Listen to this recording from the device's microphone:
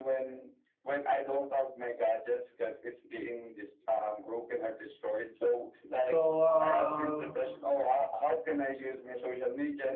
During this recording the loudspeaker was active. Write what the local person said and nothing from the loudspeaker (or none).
So, um,